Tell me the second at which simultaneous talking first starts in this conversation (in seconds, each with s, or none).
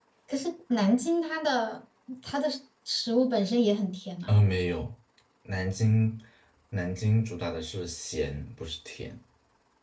none